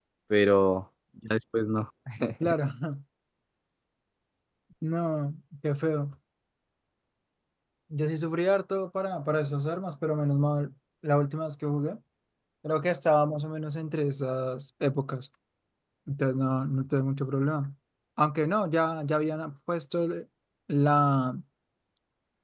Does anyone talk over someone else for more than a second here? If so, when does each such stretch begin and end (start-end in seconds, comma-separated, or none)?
none